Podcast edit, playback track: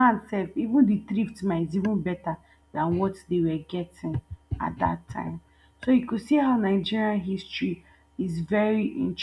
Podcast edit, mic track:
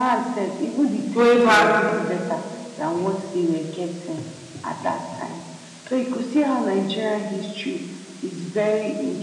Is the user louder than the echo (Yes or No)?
Yes